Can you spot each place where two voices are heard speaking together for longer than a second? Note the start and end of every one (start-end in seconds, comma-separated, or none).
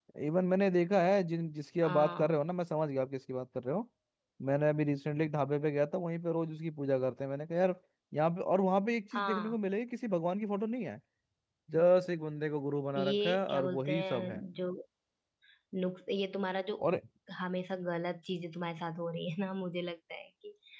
13.0-14.4